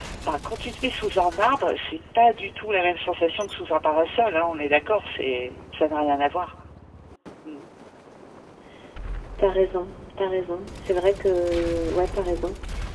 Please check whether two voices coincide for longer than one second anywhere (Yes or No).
No